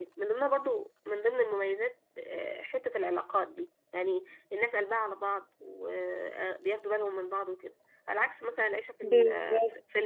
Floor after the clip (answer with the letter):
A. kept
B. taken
A